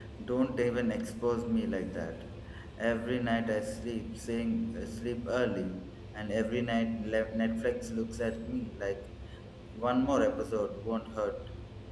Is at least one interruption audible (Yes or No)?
No